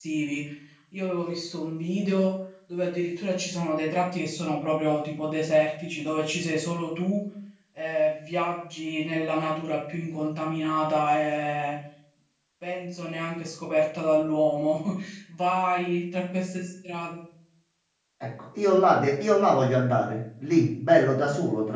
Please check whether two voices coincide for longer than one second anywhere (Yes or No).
No